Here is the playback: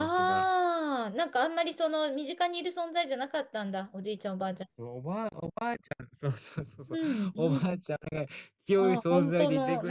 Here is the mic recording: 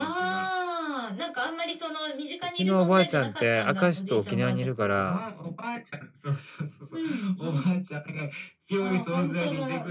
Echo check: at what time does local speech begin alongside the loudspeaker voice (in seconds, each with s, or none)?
2.4 s